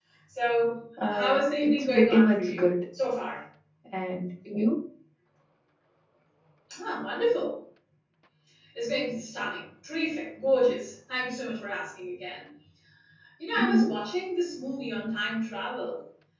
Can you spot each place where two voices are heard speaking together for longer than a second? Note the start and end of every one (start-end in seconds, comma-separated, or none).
1.0-2.6